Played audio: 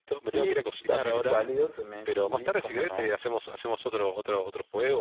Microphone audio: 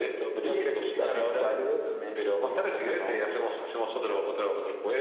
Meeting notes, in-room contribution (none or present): none